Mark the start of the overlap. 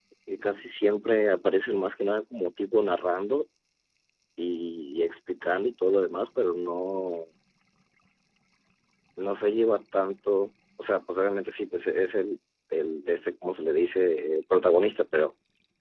none

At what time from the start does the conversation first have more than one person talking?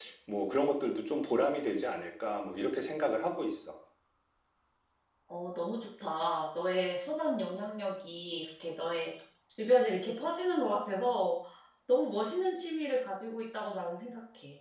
none

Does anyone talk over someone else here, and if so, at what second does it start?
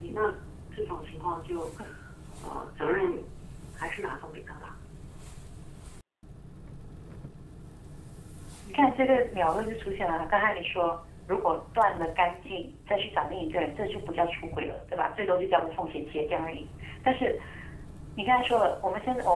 none

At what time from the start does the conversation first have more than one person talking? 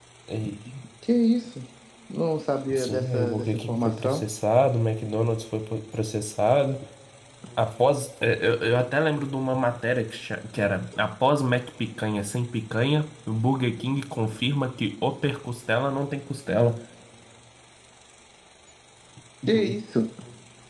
2.7 s

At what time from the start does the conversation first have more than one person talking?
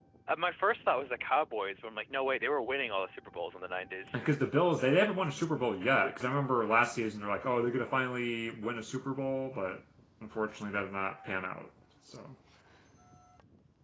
none

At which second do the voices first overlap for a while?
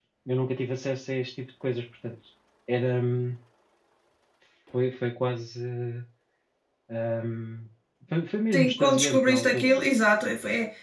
8.5 s

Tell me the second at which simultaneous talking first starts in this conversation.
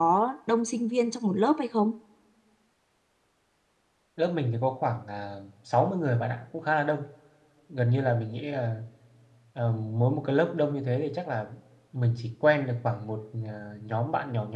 none

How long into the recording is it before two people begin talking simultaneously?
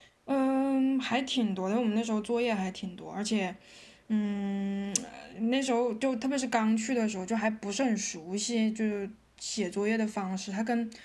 none

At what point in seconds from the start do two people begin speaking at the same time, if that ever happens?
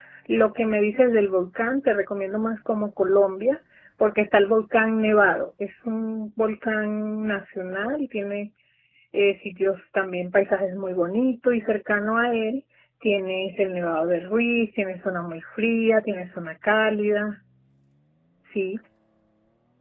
none

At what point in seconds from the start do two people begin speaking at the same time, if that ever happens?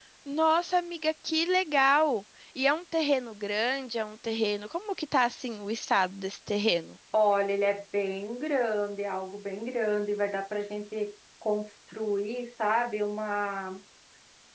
none

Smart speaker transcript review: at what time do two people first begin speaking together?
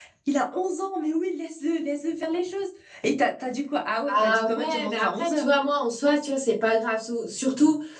4.1 s

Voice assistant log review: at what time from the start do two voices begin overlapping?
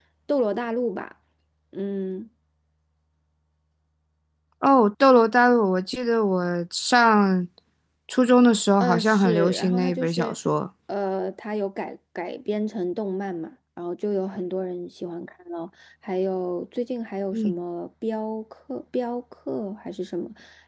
8.8 s

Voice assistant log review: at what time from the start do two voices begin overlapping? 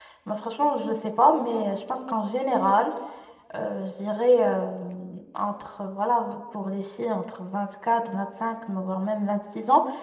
none

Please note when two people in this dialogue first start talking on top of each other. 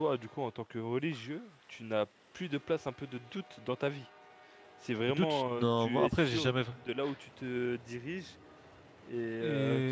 5.1 s

